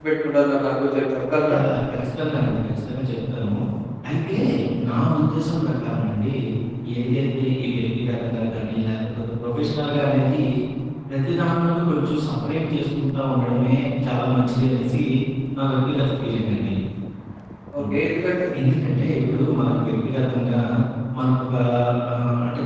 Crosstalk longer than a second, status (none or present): none